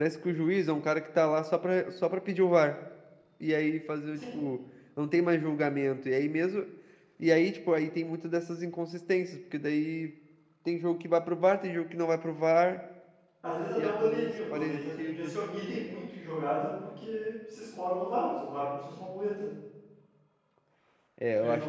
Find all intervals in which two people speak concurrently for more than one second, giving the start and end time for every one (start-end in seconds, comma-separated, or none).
13.8-15.3